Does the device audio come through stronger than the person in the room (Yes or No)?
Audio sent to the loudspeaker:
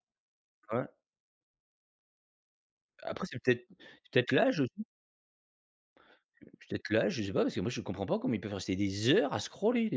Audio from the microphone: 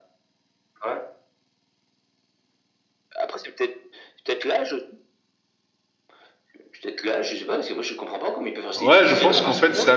No